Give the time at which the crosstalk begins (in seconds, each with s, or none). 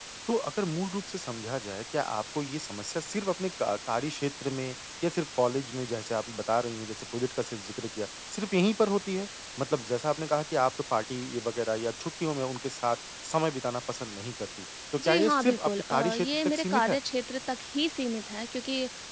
14.9 s